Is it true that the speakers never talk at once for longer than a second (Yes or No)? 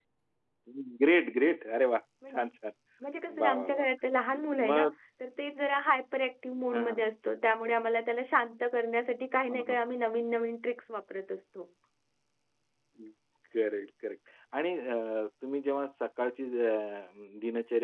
Yes